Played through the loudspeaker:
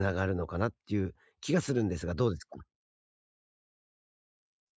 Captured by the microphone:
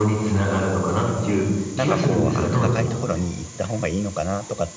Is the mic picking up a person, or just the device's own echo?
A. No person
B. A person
B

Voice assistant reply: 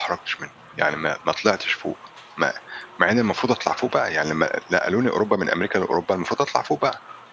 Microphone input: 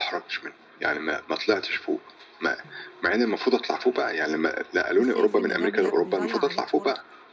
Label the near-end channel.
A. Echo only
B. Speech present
B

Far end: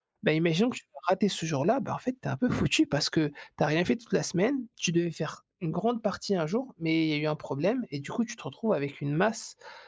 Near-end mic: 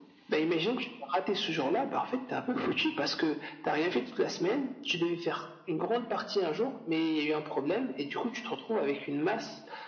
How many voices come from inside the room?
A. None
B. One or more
A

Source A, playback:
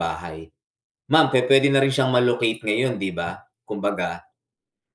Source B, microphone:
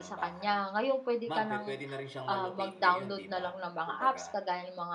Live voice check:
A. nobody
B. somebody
B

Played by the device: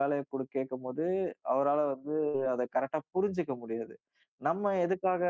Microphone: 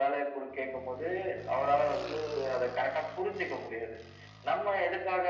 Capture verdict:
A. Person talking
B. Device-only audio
B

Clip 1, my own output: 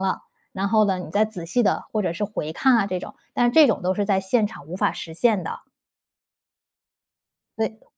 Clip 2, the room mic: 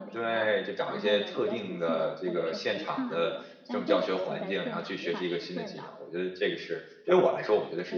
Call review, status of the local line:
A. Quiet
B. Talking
B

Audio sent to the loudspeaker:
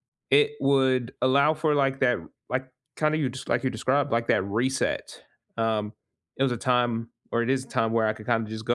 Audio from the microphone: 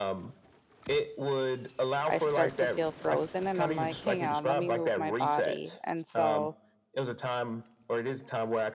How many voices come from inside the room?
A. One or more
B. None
A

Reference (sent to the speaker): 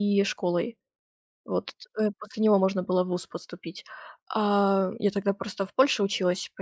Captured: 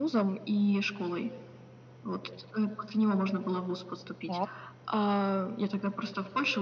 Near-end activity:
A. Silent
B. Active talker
B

